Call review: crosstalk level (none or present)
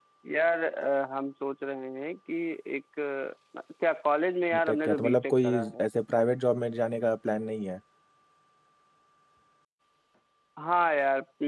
present